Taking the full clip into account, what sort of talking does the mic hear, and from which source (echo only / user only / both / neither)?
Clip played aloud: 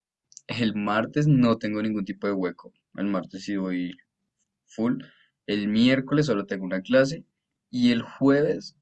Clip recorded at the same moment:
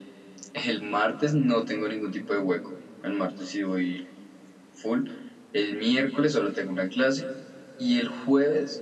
echo only